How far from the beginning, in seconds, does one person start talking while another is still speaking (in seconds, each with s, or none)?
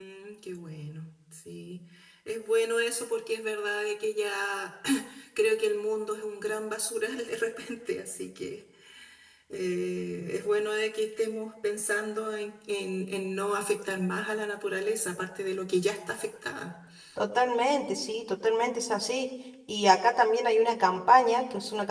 none